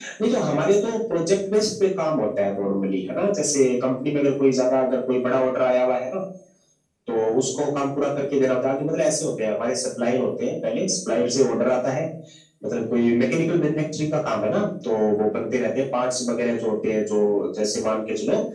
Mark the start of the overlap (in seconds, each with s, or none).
none